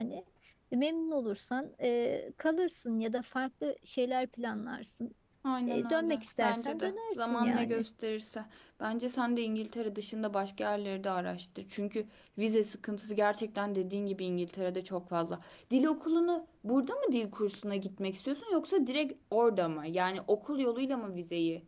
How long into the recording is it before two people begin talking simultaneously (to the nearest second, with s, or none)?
6 s